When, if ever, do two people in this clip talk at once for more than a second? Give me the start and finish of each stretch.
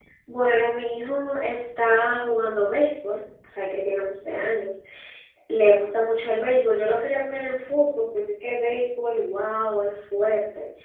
none

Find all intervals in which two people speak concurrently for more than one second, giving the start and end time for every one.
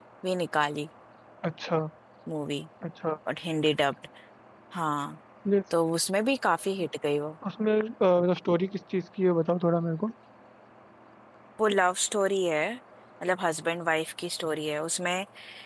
none

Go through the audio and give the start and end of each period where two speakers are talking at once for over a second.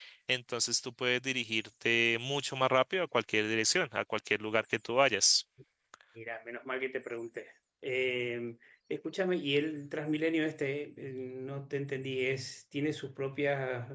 none

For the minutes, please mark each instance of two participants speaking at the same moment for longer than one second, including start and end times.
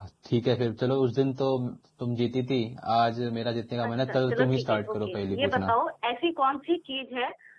3.8-5.8

